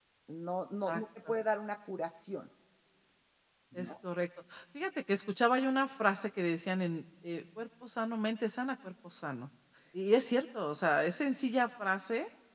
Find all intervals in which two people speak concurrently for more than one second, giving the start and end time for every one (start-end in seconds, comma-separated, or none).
none